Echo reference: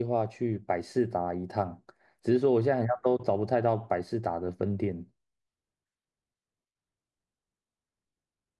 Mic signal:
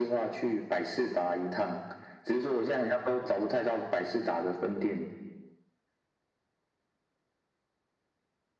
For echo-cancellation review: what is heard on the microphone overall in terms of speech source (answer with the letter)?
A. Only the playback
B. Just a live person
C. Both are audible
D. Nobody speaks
A